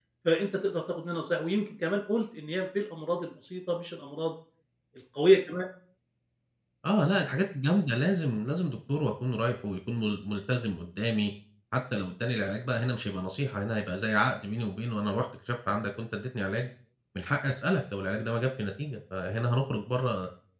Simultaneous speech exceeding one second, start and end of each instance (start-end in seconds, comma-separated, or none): none